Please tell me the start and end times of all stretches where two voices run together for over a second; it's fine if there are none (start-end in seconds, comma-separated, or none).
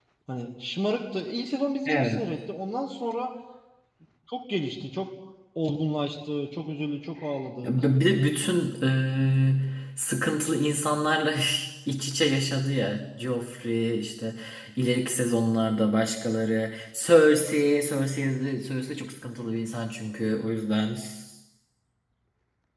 none